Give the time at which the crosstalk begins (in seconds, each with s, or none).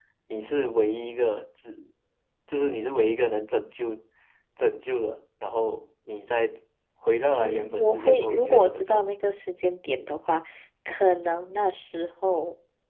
7.4 s